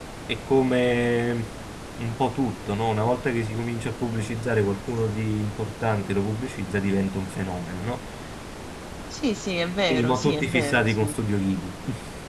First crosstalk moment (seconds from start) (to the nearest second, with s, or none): 10 s